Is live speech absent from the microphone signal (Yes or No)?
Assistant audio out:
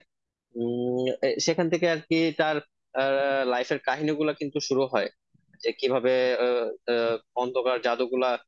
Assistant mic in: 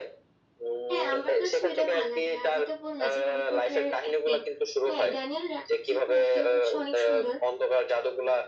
No